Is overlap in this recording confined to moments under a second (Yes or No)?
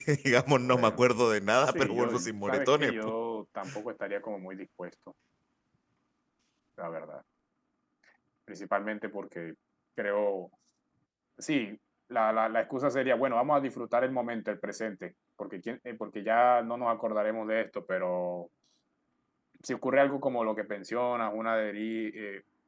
No